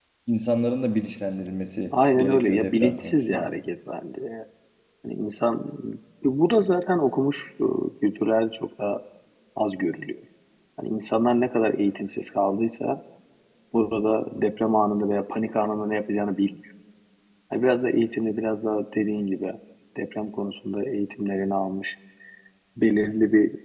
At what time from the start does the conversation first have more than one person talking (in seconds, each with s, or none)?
1.9 s